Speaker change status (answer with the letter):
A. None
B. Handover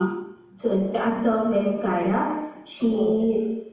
A